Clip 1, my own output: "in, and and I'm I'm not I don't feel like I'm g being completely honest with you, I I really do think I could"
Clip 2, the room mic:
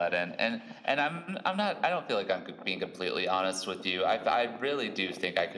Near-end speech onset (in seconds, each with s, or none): none